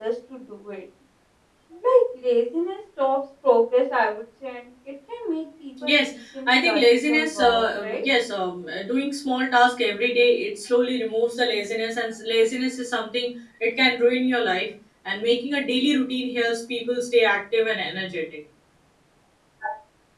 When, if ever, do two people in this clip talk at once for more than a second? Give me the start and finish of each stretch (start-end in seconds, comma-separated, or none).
6.5-8.1